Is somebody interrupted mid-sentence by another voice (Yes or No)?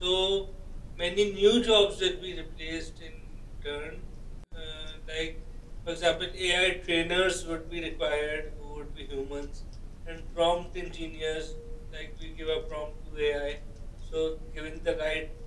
No